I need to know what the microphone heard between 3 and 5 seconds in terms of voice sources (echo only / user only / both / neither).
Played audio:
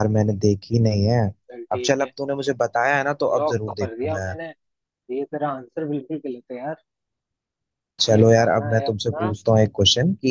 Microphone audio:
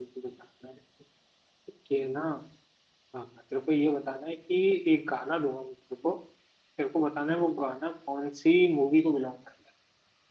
user only